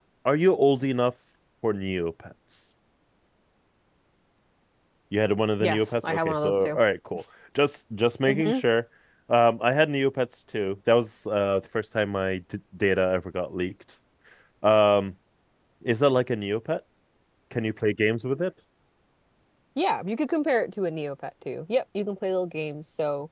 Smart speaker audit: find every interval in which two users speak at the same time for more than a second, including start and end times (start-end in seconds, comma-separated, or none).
5.6-6.8